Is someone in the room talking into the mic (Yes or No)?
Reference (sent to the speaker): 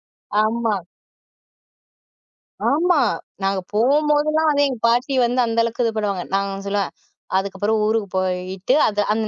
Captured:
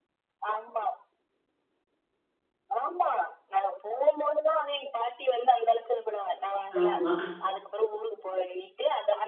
Yes